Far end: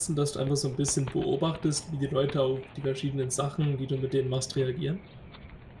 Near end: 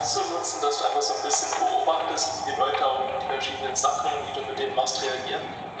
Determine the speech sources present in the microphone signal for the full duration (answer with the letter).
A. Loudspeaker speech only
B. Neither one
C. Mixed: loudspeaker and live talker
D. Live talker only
A